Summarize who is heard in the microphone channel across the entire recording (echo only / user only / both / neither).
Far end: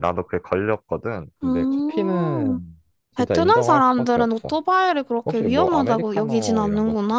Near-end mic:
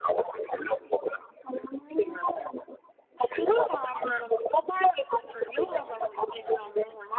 echo only